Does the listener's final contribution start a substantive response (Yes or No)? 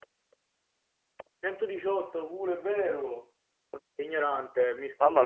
Yes